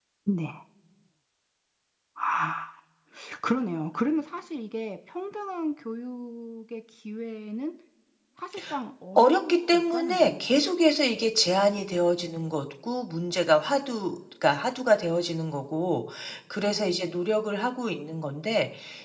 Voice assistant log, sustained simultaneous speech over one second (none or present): present